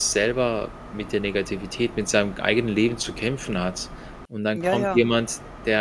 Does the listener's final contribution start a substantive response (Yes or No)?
No